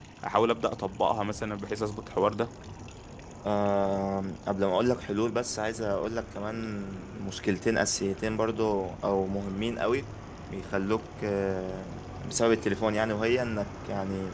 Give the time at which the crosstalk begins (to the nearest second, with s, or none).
none